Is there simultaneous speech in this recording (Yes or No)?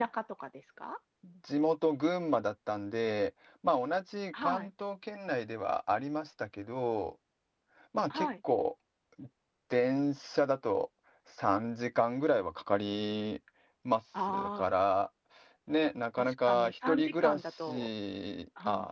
Yes